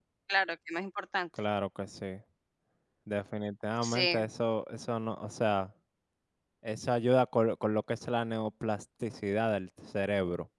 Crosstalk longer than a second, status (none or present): none